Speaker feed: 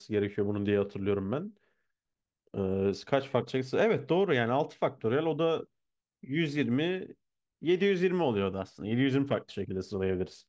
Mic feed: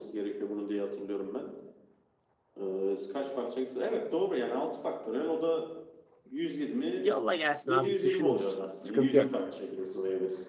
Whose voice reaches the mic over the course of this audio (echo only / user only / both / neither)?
both